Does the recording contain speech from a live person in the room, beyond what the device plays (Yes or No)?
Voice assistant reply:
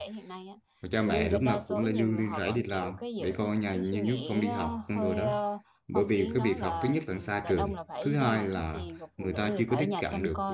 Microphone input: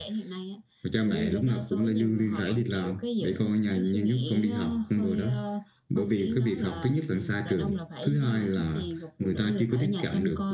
No